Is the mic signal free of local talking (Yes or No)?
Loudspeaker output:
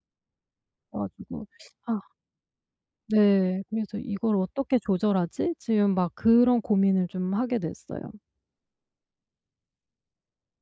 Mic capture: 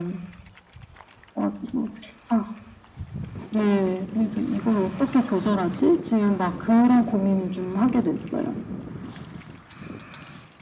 Yes